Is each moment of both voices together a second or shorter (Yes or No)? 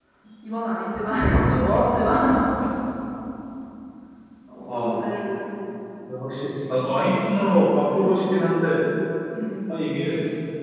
Yes